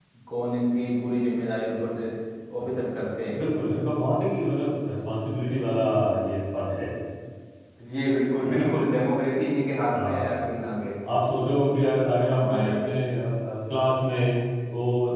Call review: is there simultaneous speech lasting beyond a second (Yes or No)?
No